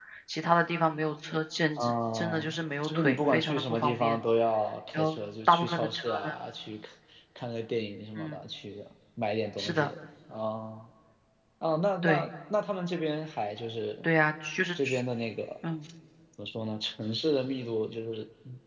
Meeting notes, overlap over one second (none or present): present